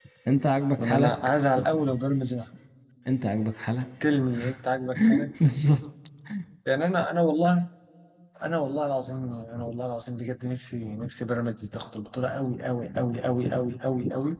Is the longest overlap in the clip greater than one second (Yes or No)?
No